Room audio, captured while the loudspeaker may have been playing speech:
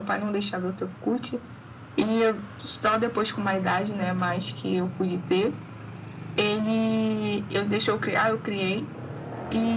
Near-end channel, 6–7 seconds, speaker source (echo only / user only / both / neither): echo only